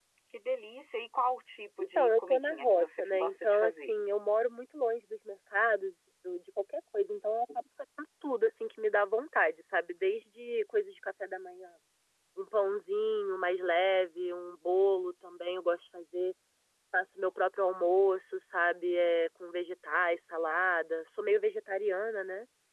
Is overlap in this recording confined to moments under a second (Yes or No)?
No